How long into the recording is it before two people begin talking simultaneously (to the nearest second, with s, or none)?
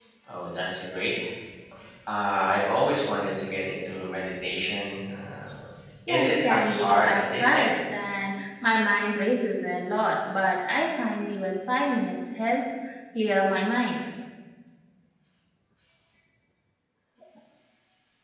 6 s